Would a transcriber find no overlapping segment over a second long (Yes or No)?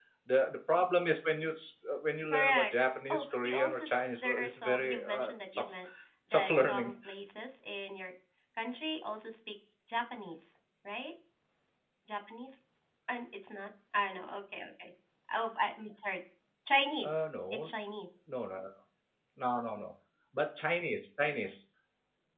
No